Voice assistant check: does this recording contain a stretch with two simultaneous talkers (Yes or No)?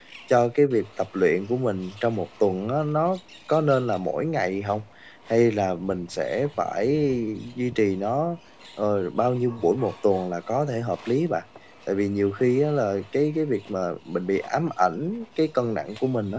No